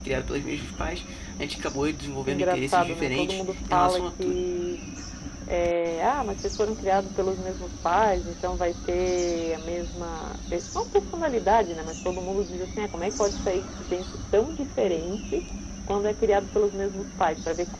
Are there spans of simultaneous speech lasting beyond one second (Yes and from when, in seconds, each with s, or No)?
Yes, from 2.3 s